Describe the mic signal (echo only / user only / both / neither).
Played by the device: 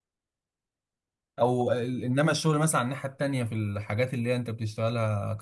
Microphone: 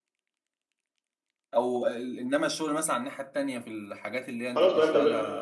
both